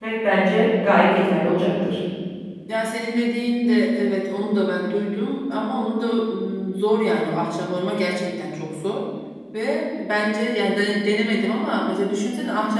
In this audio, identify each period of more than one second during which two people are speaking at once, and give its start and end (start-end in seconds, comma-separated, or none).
none